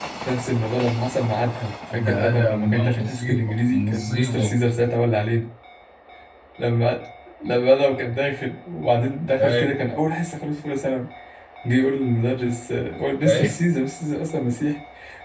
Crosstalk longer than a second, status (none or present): present